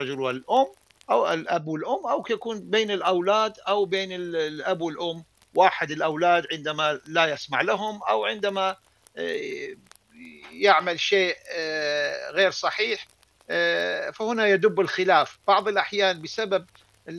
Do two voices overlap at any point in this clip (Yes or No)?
No